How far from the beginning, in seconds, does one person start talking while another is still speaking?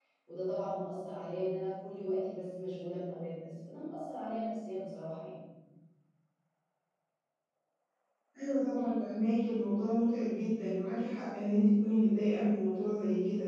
none

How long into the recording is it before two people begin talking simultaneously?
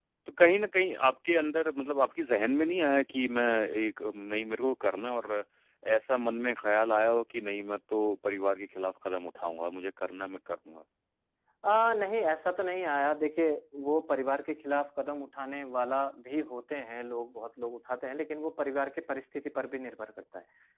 none

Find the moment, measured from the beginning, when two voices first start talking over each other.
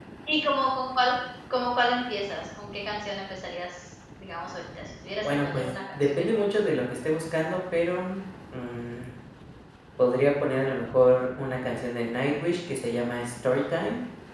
5 s

